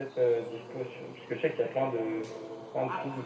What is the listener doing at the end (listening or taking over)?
listening